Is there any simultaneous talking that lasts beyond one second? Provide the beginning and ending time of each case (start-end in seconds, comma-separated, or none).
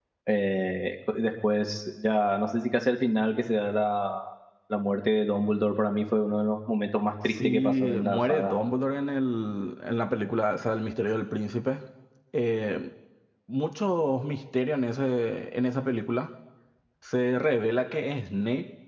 7.3-8.5